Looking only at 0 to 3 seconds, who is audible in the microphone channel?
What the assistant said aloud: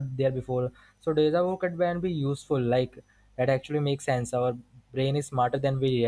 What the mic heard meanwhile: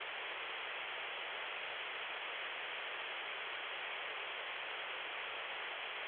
neither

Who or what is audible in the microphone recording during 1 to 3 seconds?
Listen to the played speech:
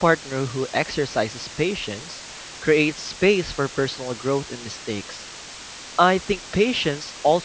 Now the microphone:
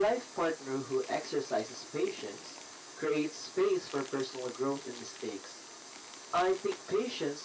echo only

